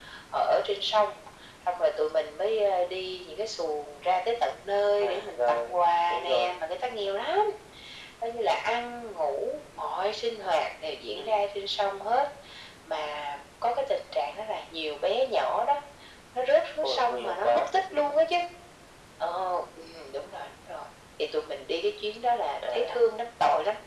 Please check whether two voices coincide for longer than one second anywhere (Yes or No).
Yes